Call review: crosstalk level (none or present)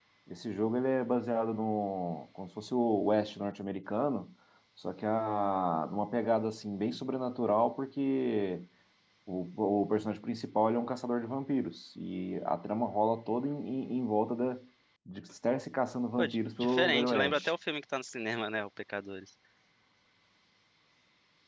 present